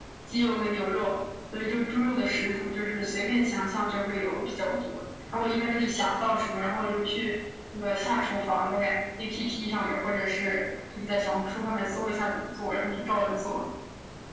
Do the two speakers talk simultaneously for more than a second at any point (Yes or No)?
No